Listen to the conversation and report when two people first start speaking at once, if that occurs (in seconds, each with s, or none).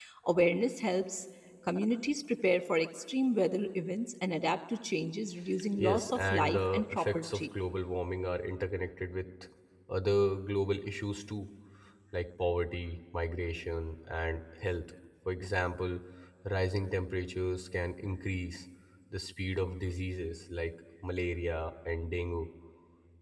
5.8 s